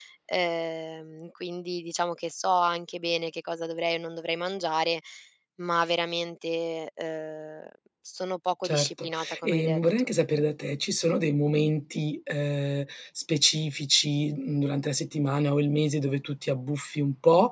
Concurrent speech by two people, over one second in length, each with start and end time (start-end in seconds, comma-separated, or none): 8.6-10.1